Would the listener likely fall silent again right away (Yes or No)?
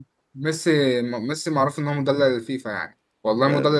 Yes